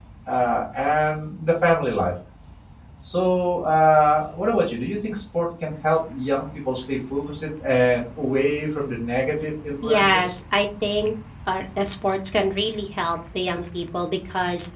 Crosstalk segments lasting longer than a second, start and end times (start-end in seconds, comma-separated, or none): none